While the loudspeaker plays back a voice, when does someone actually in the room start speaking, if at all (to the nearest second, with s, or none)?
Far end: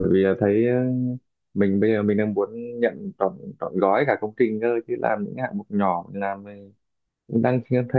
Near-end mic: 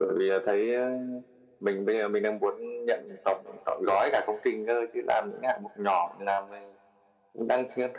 none